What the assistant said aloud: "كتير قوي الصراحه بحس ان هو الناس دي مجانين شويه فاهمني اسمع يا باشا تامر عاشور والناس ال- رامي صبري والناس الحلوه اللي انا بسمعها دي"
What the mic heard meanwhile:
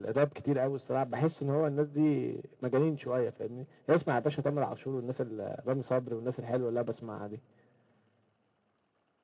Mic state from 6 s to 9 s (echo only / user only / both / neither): echo only